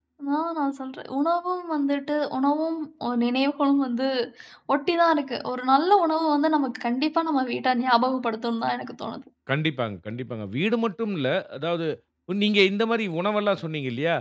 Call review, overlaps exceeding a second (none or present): none